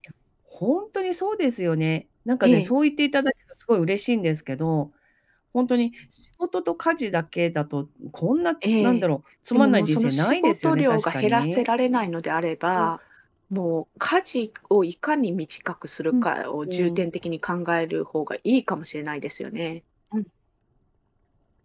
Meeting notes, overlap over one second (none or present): present